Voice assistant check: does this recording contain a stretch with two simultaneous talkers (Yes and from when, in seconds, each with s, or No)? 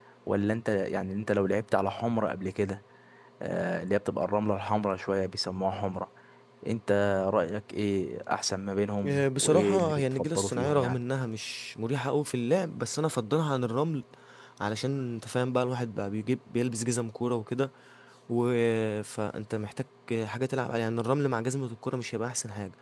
Yes, from 9.0 s